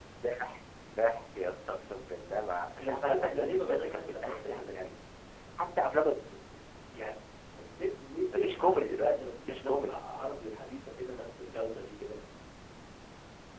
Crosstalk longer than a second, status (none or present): present